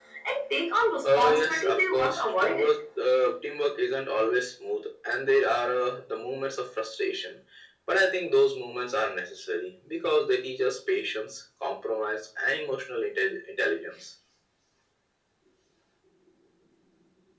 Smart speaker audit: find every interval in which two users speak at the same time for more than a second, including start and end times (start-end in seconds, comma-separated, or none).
1.1-2.7